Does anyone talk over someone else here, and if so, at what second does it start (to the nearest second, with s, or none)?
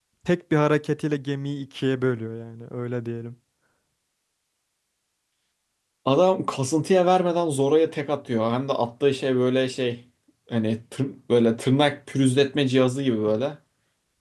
none